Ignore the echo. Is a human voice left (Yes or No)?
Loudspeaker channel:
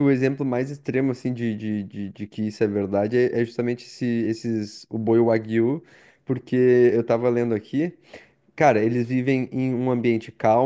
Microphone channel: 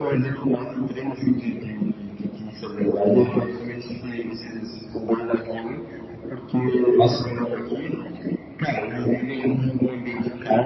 Yes